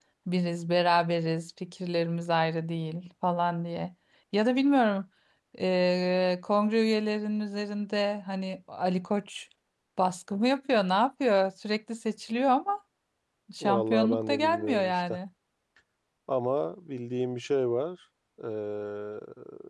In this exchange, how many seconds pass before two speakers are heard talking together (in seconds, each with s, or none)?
13.6 s